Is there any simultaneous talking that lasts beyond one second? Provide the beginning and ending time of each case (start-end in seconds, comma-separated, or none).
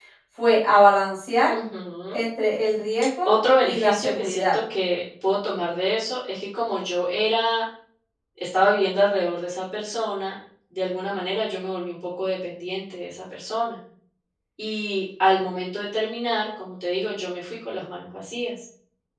3.2-4.5